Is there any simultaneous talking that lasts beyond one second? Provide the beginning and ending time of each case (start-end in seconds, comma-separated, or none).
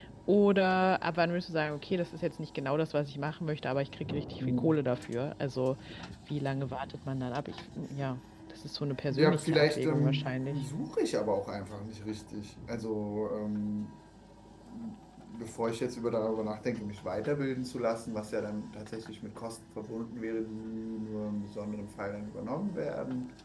9.1-10.6